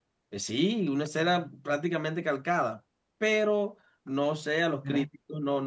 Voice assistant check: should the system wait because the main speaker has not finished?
Yes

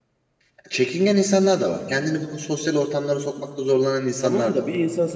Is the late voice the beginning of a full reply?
Yes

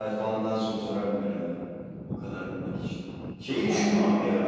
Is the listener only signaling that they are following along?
Yes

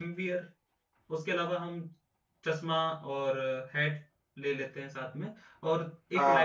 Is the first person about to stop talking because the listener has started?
No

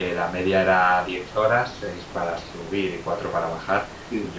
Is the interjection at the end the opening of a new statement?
No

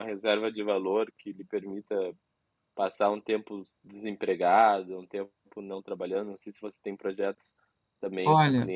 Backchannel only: No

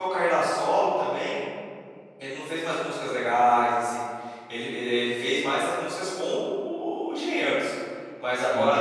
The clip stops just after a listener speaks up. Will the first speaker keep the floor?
Yes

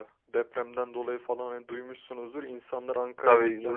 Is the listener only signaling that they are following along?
No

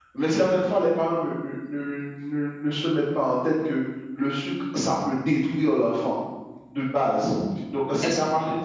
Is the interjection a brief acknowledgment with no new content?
Yes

